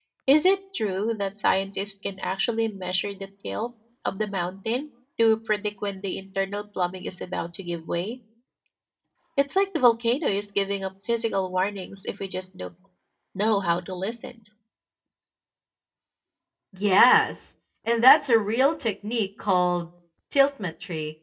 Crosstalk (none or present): none